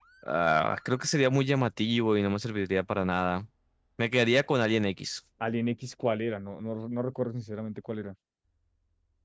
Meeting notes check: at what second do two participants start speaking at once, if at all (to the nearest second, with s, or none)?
none